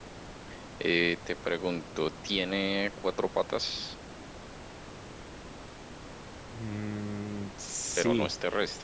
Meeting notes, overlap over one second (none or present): none